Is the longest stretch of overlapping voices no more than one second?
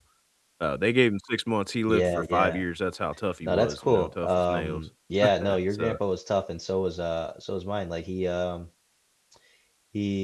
No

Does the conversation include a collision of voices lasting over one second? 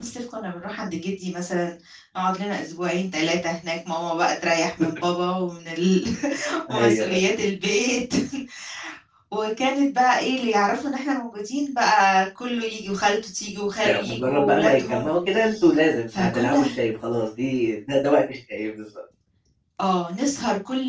Yes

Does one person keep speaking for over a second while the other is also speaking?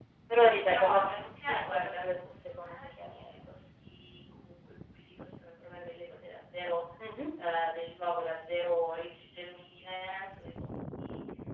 Yes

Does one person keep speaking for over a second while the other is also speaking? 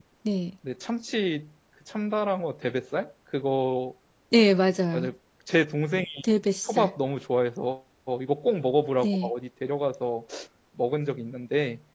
No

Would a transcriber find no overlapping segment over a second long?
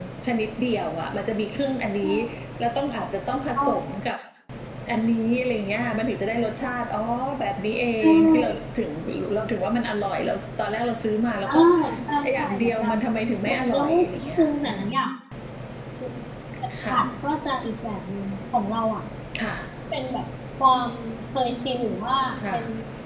No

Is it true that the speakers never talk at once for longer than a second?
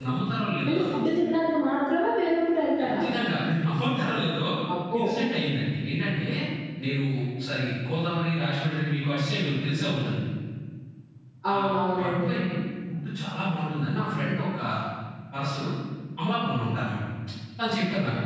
Yes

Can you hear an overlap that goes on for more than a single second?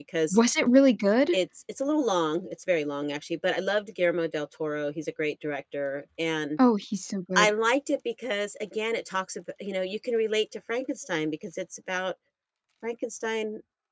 No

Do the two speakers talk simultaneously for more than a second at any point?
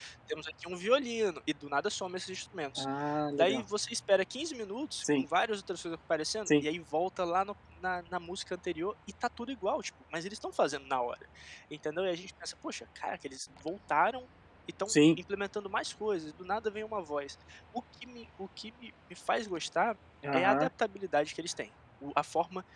No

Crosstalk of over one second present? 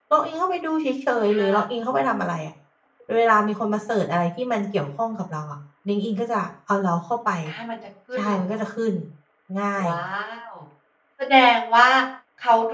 No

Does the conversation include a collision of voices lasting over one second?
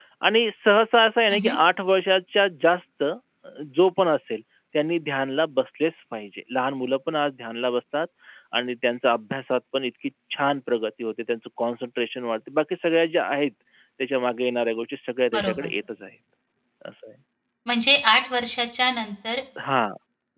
No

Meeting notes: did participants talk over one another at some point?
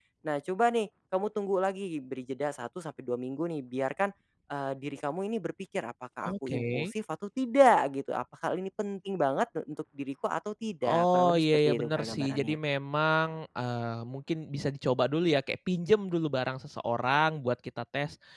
Yes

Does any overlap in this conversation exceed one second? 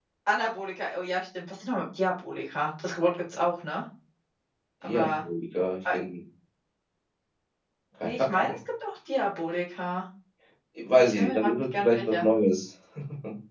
Yes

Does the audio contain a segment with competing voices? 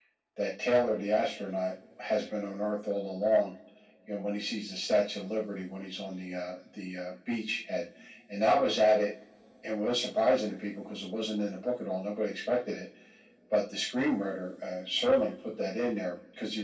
No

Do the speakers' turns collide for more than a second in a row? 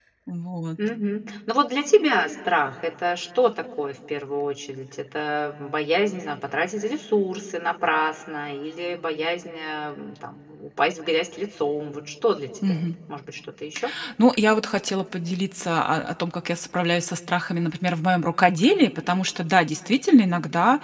No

